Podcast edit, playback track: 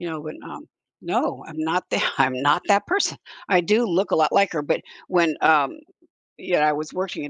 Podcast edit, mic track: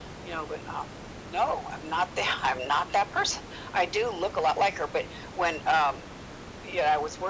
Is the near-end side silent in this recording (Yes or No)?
Yes